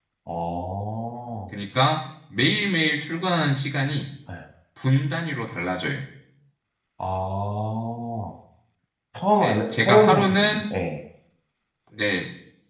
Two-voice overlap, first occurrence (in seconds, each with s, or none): 9.4 s